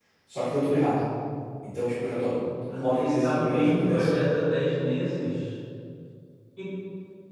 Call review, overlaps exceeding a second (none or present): present